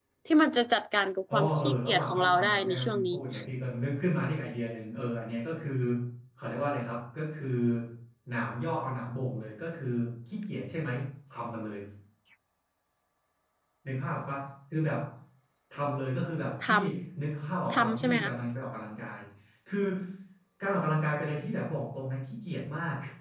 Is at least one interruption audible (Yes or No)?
Yes